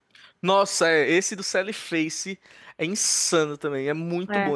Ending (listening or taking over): listening